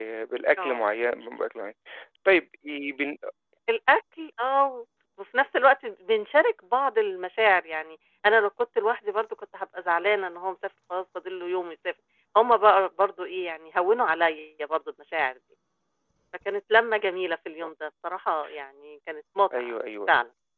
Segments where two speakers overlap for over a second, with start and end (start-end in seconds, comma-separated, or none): none